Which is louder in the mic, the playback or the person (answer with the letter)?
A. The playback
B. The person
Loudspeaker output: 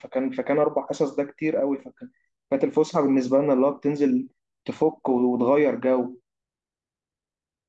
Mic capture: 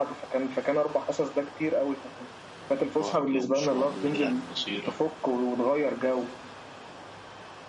A